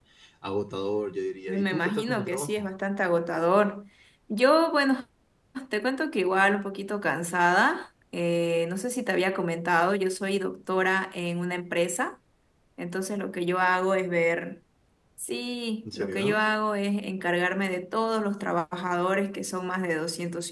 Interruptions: present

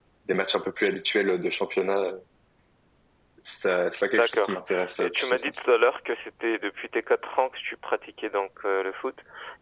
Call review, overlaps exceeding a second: present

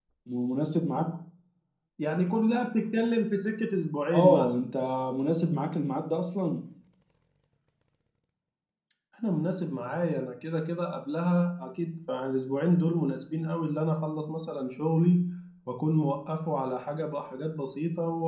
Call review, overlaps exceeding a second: none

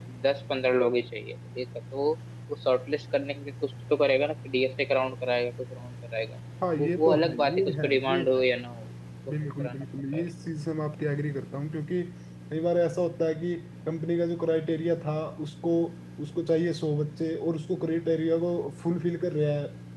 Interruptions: present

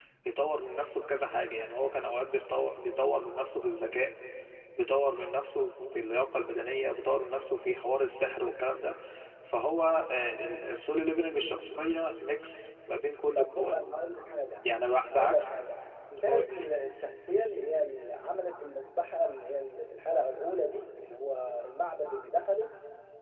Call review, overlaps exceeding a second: none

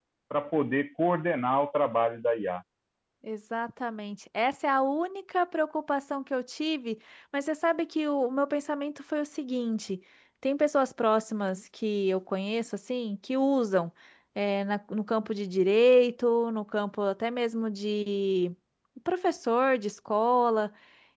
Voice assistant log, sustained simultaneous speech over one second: none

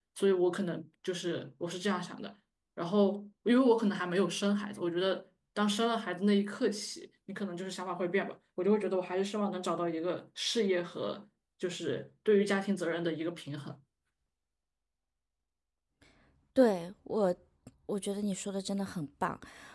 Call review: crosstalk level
none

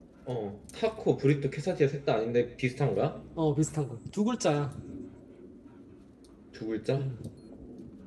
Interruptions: none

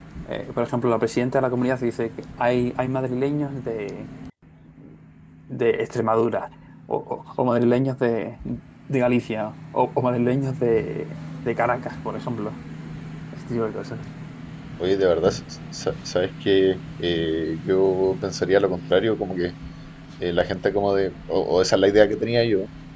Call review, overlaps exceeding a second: none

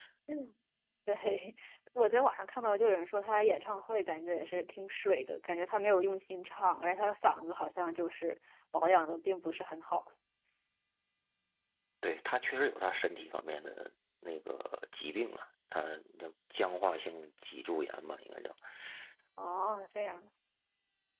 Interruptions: none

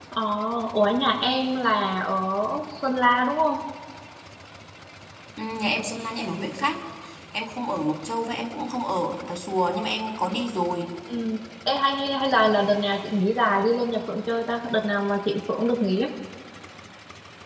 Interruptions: none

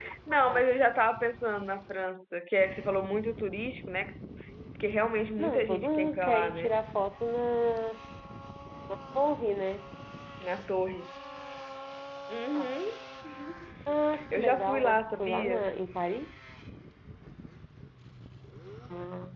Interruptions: present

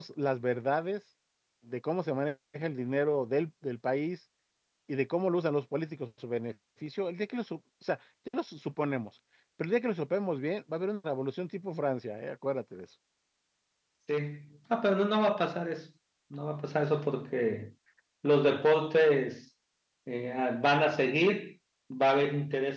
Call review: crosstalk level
none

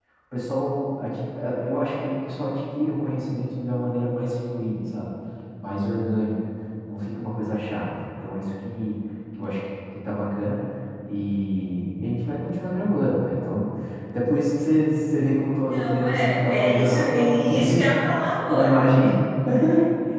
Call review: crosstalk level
present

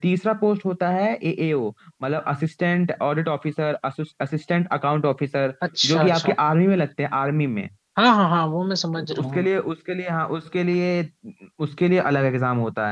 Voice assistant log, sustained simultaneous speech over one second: none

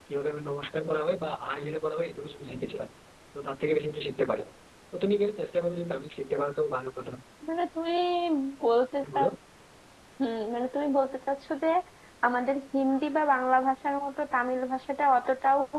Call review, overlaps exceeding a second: none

